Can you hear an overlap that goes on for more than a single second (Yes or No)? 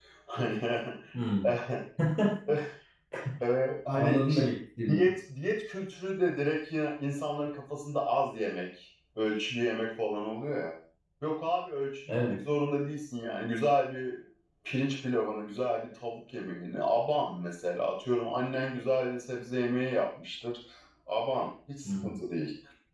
No